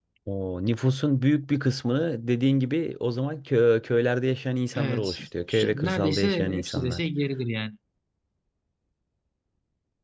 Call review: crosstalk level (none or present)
present